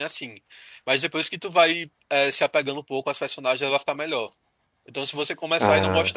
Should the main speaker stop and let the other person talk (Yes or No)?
No